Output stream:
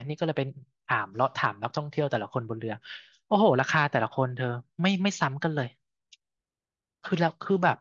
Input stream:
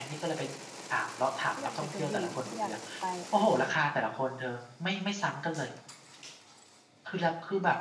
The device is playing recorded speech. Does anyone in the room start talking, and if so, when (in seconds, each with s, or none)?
1.5 s